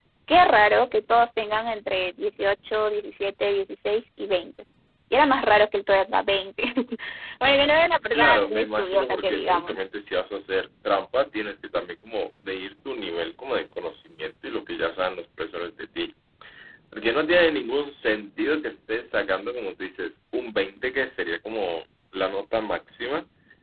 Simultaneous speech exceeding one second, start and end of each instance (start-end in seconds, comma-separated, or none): 8.1-9.8